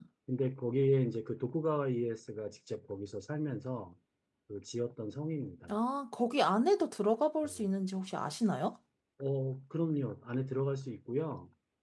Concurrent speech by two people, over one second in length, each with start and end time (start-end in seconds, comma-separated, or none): none